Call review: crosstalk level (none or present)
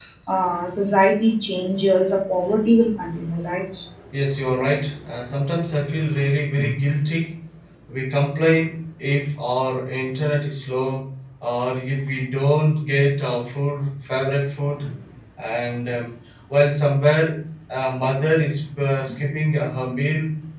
none